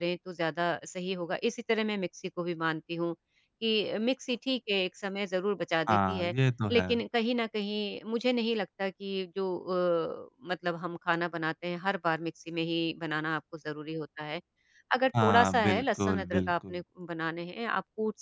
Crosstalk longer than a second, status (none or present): present